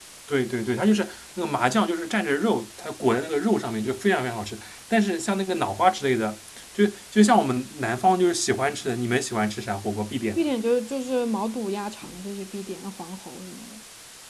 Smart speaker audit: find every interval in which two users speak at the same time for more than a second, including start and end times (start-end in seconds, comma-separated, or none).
none